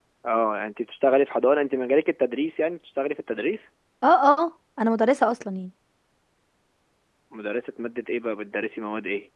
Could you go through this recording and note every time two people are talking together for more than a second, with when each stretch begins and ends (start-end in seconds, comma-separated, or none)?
none